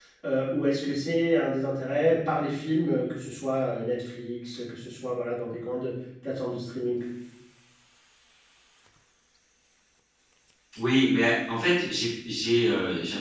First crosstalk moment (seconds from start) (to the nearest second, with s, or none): none